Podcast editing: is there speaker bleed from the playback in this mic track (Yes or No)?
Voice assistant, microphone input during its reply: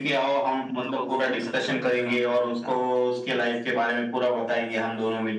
Yes